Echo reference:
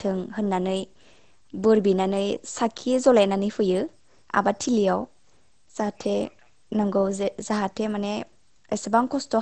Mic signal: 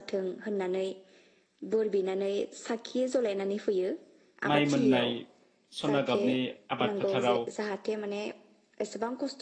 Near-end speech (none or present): present